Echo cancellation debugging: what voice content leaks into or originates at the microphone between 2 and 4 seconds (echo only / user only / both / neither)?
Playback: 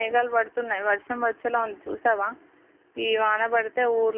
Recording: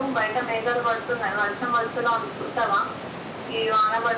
echo only